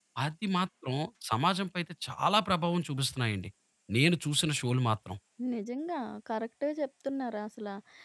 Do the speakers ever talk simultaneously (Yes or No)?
No